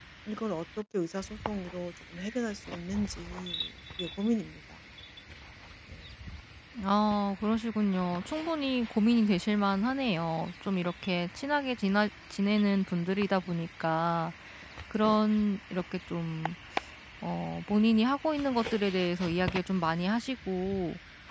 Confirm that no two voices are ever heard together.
Yes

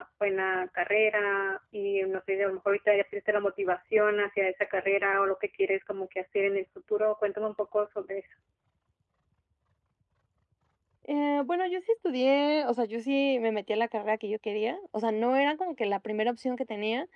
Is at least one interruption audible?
No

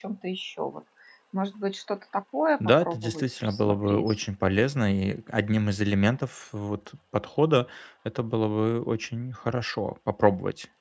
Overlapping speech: Yes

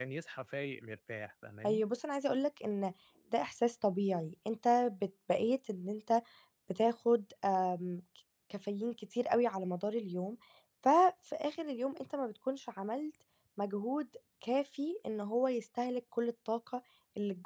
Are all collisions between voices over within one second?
Yes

